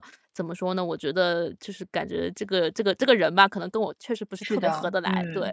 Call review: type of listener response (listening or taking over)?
taking over